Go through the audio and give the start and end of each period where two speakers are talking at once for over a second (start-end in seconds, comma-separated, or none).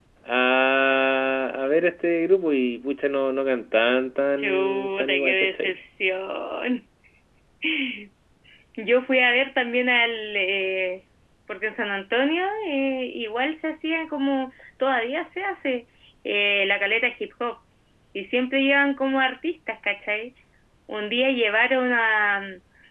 4.4-5.8